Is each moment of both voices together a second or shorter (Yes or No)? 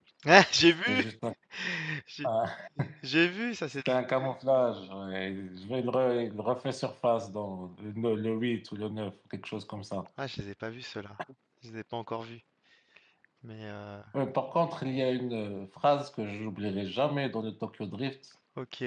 Yes